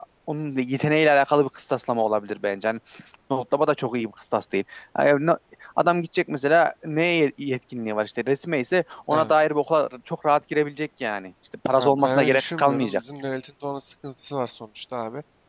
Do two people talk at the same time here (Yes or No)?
Yes